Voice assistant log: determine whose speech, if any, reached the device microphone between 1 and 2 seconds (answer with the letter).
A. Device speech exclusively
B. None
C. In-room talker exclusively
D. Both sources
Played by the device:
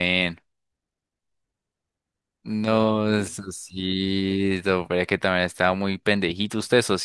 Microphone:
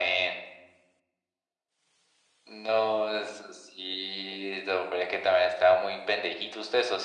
B